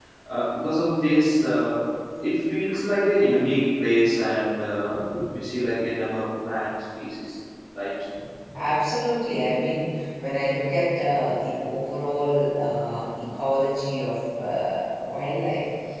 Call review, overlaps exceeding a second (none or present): none